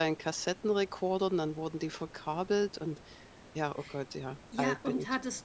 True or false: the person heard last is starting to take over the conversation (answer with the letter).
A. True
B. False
A